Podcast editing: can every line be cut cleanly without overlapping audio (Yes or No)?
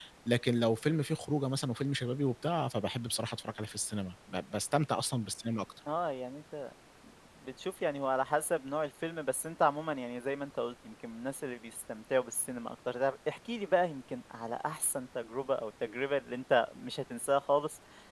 Yes